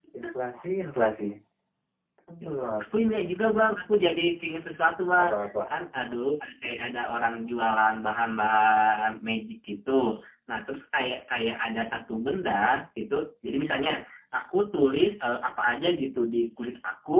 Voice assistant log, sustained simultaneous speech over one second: none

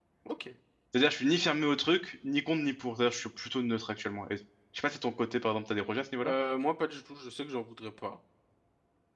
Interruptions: none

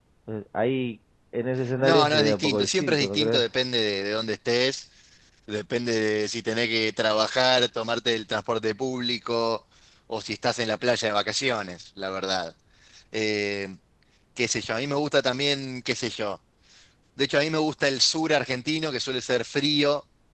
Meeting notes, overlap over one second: present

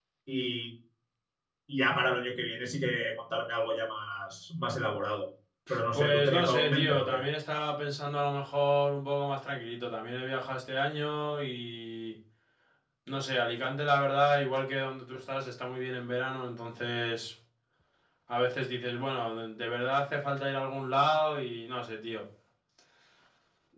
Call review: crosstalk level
present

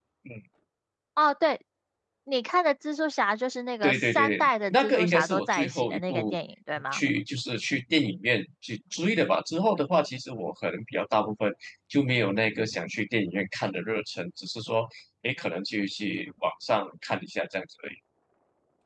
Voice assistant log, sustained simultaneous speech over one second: present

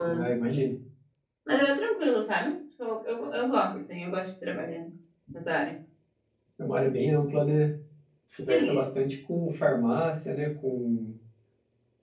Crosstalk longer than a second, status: none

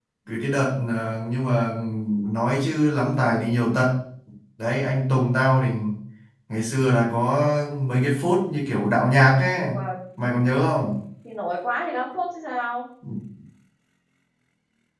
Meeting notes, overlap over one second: none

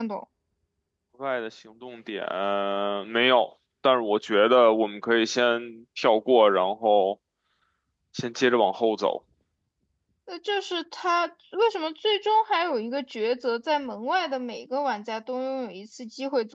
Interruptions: none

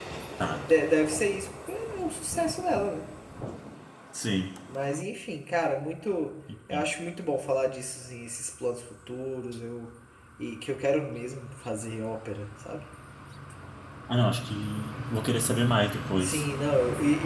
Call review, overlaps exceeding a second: none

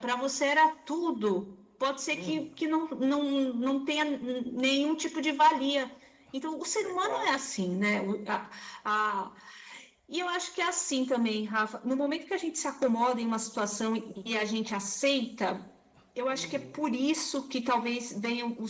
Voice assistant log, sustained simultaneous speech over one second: none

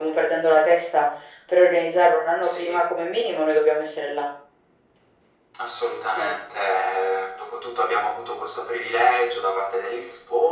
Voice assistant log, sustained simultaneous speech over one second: none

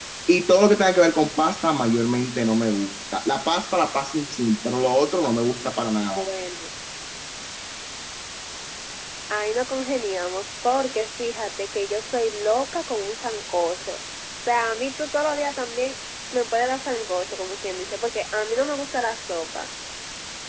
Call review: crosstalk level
none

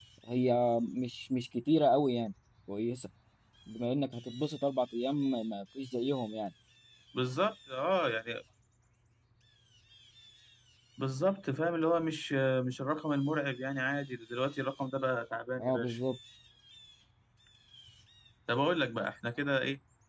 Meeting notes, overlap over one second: none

